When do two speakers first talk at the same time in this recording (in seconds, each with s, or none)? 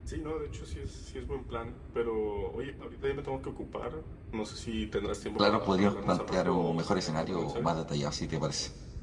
5.4 s